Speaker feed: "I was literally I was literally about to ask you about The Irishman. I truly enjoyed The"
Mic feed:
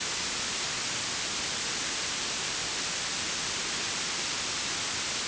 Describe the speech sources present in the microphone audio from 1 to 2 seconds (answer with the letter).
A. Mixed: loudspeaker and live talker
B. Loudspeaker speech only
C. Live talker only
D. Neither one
D